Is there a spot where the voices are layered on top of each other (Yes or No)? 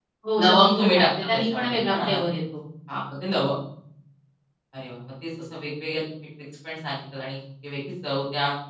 Yes